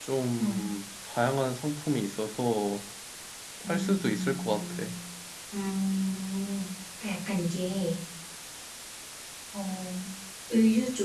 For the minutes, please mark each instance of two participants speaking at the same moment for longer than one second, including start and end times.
3.6-4.9

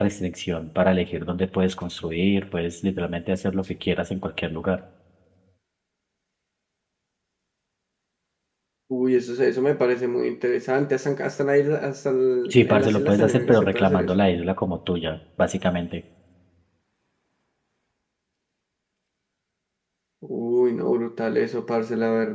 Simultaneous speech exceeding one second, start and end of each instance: 12.5-14.1

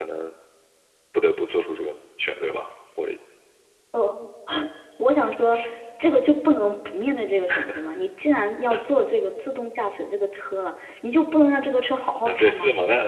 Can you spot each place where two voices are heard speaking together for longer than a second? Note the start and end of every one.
none

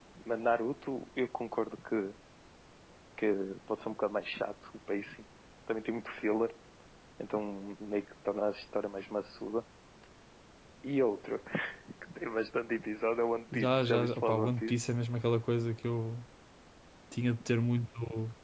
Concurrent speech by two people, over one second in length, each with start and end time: 13.5-14.8

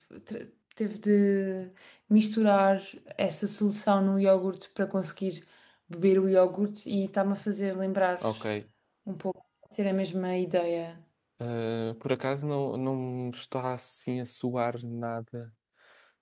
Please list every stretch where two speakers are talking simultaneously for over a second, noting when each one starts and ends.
none

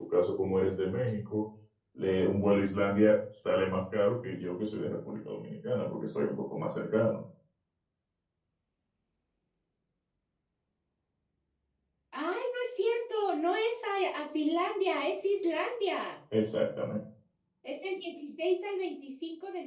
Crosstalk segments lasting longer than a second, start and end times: none

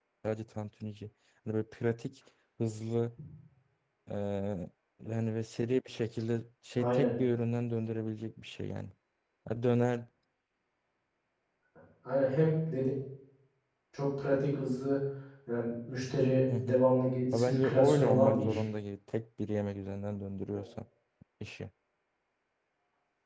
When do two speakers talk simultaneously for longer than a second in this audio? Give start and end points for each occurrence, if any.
17.3-18.6

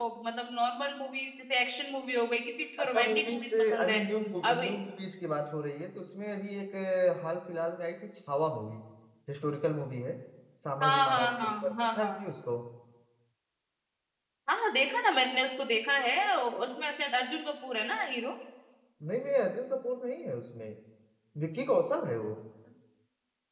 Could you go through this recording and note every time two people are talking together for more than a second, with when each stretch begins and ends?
2.8-4.0, 10.8-12.2

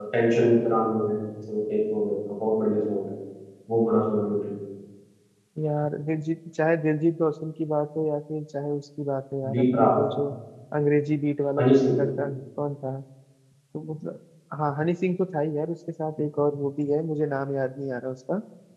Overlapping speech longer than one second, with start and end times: none

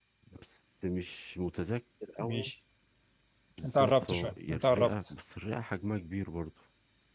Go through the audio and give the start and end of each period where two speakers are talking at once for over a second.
3.6-5.1

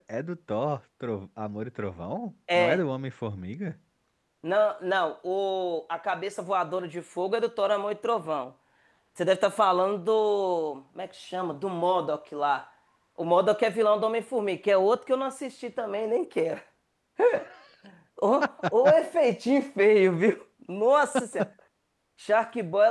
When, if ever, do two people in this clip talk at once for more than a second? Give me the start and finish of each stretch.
none

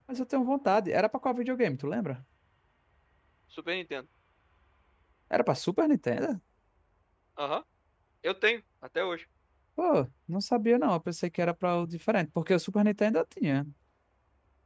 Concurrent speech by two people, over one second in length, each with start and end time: none

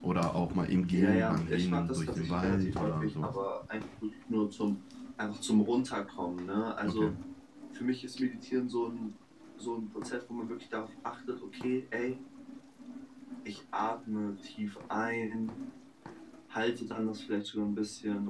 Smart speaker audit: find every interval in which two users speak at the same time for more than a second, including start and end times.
0.9-3.3

